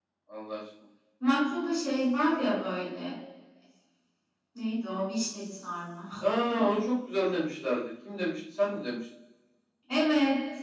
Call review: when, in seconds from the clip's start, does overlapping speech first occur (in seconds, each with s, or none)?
none